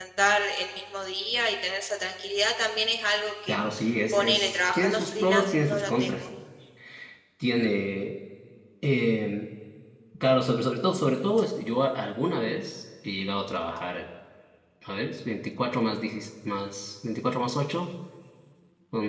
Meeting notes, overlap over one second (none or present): present